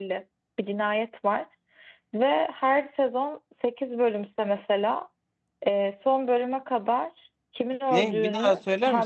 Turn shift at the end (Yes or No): Yes